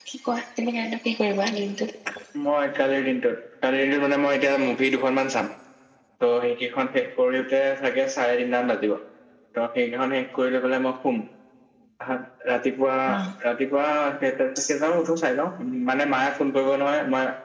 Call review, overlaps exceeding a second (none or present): none